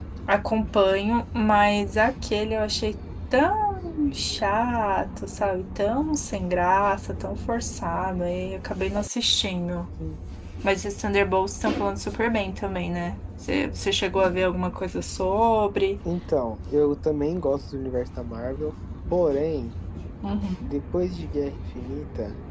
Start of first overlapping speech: none

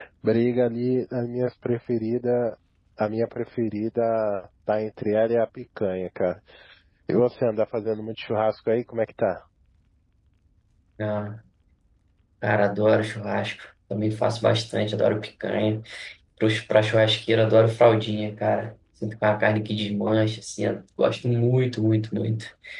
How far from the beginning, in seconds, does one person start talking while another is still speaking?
none

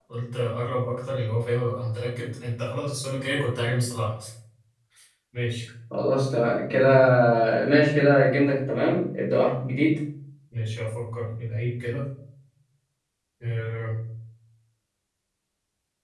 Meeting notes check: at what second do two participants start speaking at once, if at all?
none

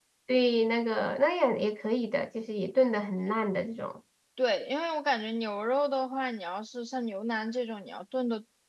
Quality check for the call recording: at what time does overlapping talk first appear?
none

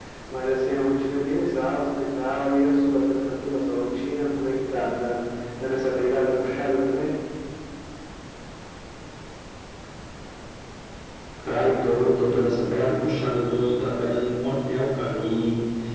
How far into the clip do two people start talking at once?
none

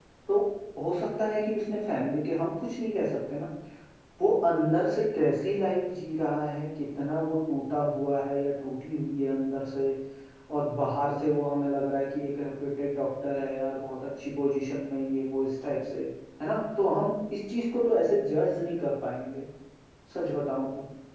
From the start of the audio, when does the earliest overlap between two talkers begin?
none

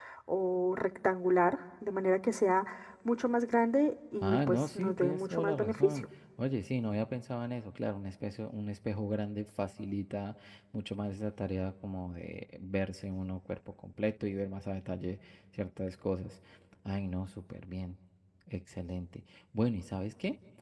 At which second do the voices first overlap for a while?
4.2 s

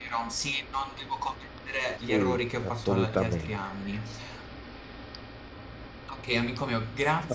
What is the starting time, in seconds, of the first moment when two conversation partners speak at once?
2.1 s

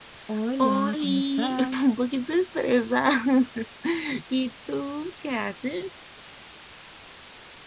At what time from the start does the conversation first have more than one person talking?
0.6 s

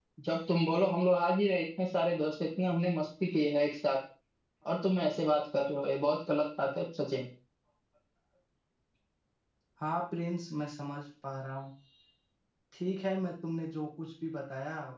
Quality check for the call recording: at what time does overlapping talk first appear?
none

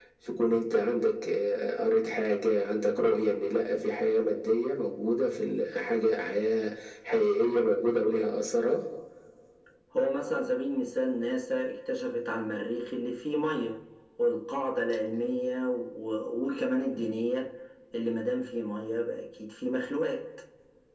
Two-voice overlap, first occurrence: none

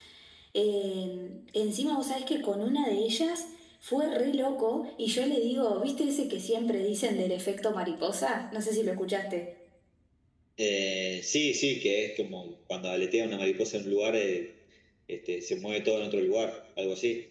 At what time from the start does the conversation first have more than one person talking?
none

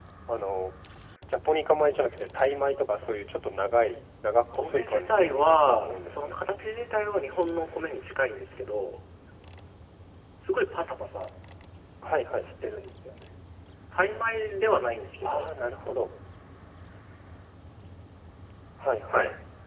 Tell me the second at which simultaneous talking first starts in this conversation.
4.5 s

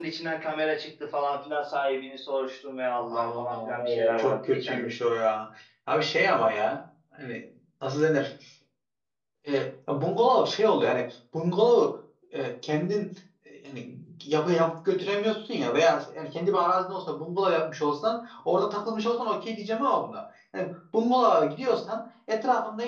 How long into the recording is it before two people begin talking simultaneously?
3.0 s

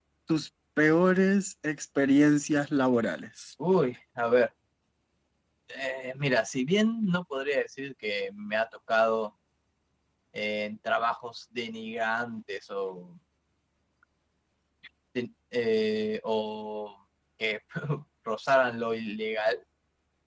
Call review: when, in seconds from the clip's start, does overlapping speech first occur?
none

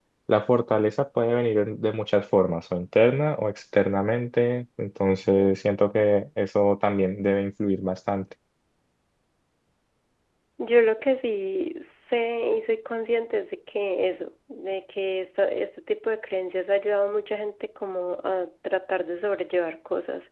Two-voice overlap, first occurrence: none

